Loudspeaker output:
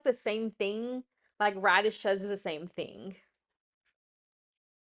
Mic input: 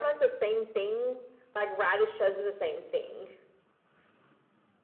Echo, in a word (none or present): present